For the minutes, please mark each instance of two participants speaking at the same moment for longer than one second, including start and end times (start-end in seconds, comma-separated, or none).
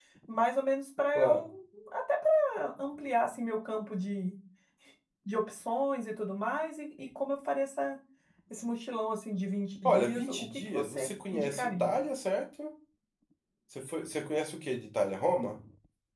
9.8-11.9